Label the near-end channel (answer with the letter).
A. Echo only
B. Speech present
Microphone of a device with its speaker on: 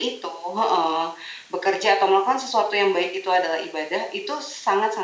A